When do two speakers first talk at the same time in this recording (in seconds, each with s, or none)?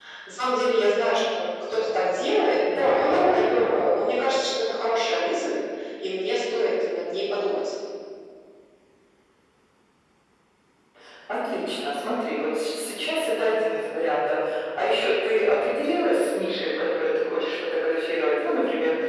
2.7 s